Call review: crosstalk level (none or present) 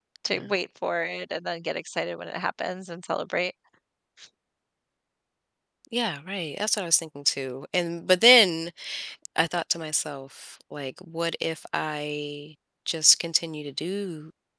none